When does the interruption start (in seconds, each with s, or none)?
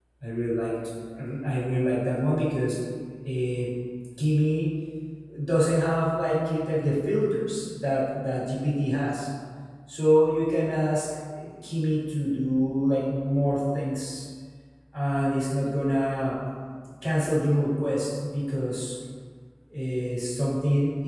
none